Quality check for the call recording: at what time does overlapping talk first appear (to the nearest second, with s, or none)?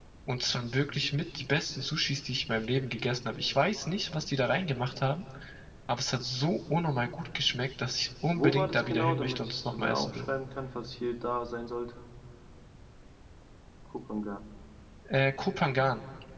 8 s